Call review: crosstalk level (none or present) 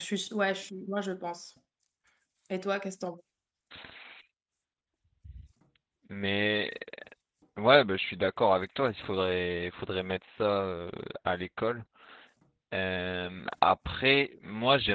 none